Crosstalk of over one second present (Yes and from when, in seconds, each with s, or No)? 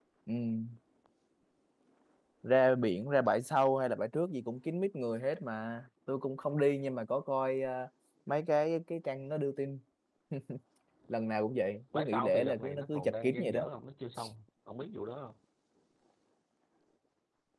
Yes, from 11.9 s